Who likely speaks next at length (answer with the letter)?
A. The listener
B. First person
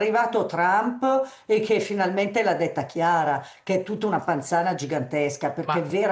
B